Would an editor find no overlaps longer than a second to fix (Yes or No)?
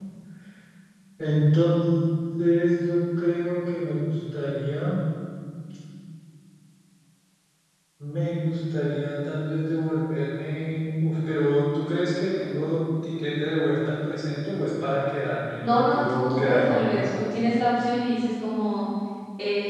No